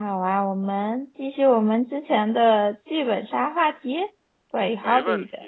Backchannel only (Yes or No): No